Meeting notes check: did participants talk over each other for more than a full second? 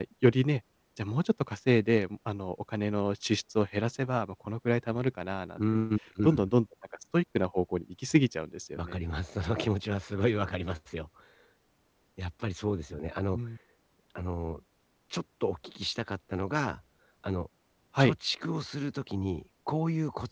No

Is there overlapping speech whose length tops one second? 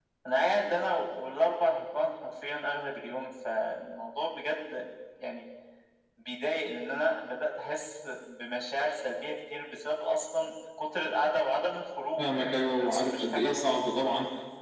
Yes, from 12.2 s

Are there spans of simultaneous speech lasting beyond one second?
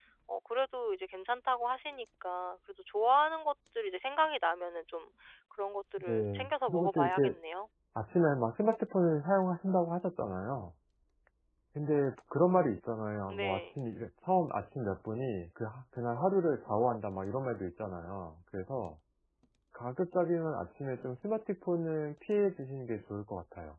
Yes, from 6.1 s

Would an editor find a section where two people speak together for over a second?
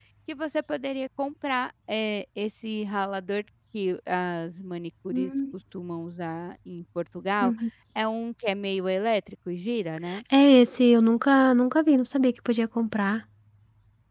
No

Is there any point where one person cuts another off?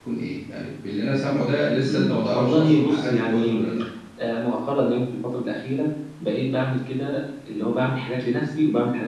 Yes, from 1.9 s

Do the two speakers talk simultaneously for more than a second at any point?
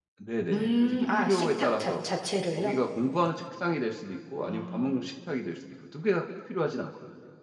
Yes, from 0.5 s

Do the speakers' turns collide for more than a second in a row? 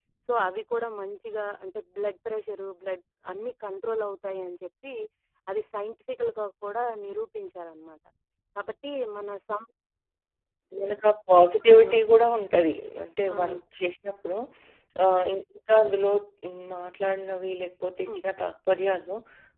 No

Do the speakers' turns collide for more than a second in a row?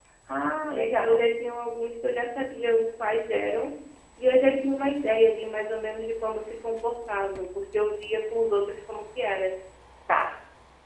No

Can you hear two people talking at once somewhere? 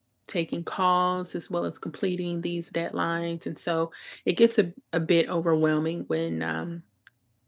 No

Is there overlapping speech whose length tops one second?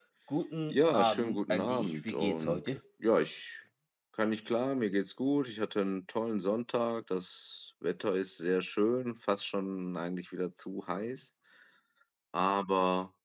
Yes, from 0.7 s

